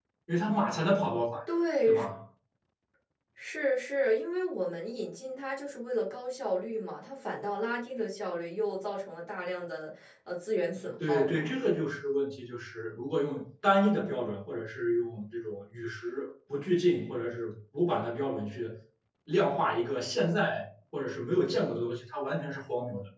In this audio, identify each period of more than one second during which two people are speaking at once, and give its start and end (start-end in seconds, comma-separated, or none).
none